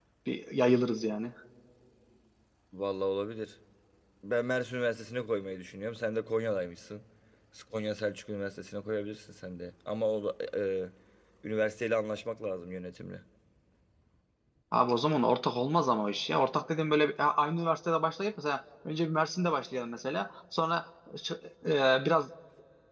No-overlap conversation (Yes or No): Yes